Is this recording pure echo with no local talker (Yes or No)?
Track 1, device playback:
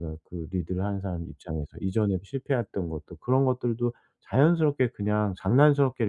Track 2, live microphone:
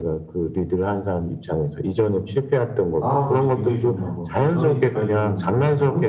No